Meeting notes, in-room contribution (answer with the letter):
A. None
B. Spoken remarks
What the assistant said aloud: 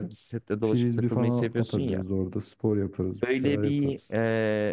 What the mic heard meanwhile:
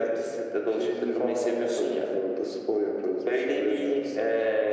A